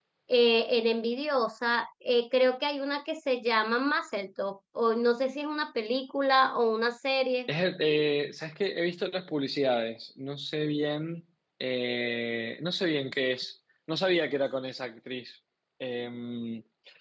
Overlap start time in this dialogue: none

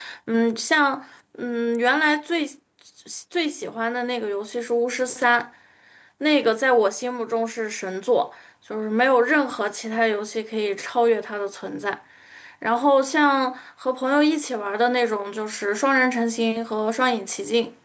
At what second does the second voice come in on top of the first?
none

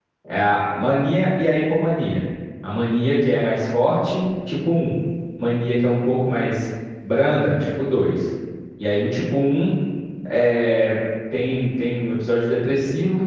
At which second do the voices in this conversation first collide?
none

